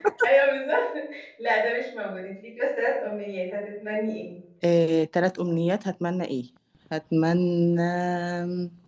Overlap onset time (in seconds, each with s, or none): none